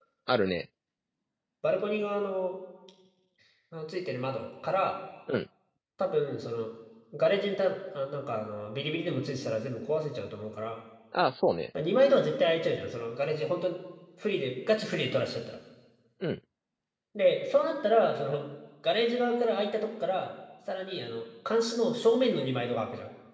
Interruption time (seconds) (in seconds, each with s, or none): none